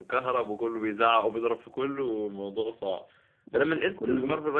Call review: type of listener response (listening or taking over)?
listening